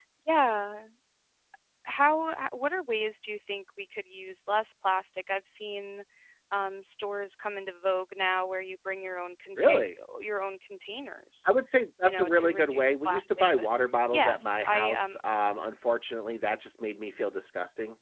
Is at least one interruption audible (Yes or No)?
Yes